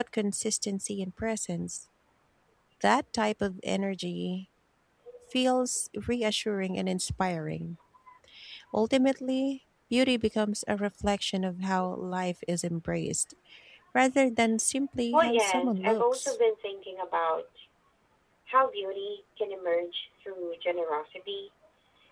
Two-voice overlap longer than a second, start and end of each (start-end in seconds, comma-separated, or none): 15.1-16.4